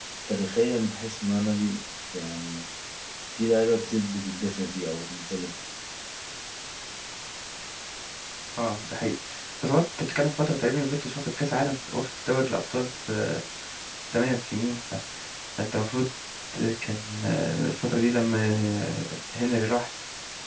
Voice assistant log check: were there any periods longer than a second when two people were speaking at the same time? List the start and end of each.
none

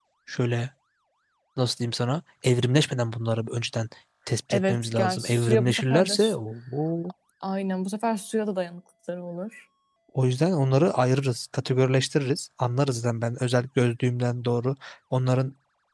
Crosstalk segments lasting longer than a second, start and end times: 4.5-6.1

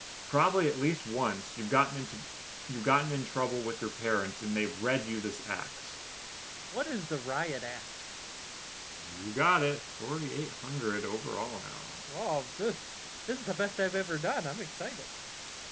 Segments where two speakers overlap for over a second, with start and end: none

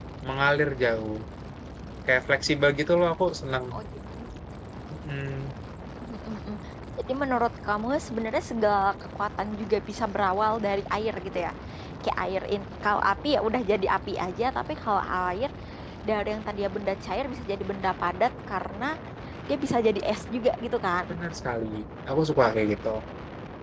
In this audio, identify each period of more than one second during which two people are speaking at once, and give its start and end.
none

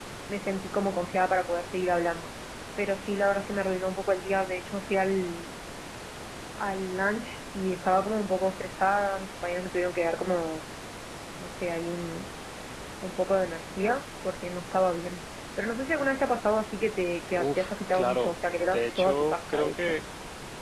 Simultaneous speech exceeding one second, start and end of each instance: 17.4-19.9

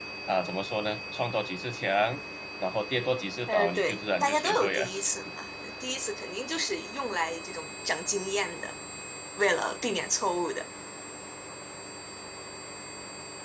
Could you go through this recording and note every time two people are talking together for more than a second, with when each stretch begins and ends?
3.5-4.8

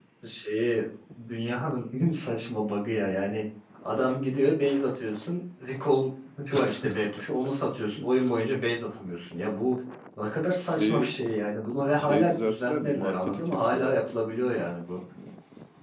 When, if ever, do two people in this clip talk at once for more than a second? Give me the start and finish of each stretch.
12.0-14.1

